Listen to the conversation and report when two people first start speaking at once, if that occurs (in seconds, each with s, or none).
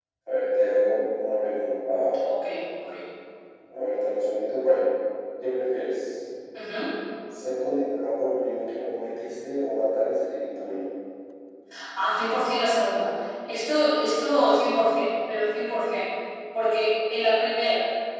none